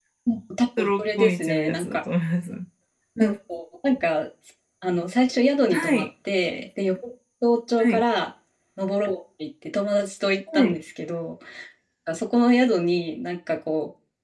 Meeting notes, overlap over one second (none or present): present